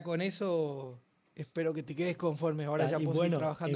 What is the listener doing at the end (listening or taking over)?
taking over